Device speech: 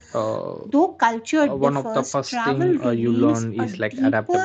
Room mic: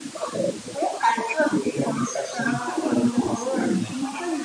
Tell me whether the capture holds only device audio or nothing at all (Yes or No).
No